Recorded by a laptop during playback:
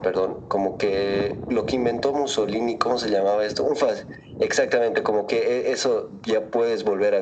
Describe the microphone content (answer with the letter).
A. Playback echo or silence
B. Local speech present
A